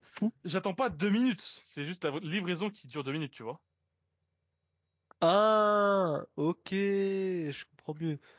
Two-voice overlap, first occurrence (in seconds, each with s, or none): none